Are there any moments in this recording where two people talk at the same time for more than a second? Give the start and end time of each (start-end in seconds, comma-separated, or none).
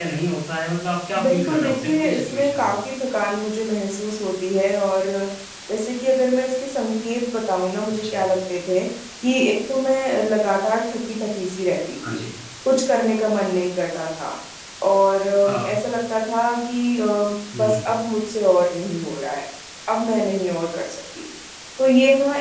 1.2-2.8